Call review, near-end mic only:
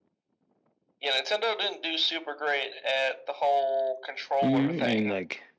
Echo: present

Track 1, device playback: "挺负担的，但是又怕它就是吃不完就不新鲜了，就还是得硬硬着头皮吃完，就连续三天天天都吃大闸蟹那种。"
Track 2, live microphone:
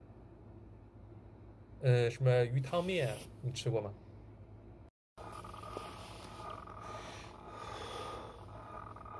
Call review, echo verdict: none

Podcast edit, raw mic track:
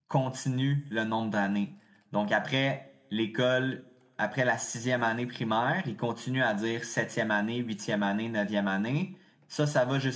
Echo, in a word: none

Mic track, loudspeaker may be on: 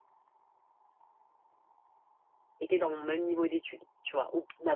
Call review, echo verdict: none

